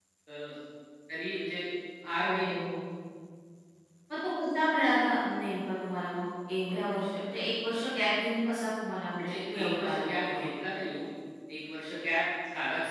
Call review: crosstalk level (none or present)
present